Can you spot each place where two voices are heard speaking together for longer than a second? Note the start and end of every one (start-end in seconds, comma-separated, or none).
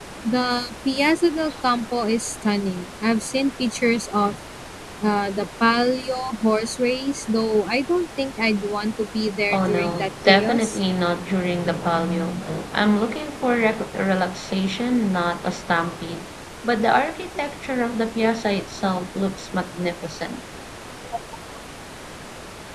9.5-10.8